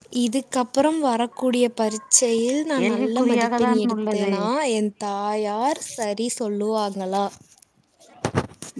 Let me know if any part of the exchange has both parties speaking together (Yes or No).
Yes